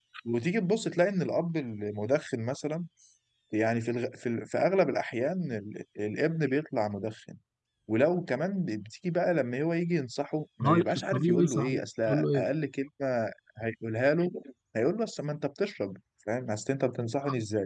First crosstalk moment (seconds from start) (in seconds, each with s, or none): 10.6 s